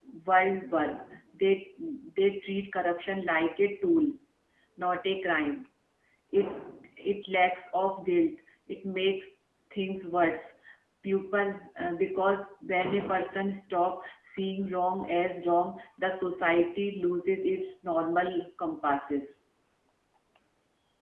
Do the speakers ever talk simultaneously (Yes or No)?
No